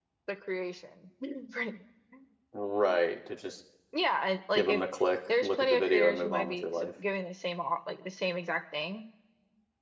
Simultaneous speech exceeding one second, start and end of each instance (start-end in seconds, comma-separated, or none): 5.4-6.9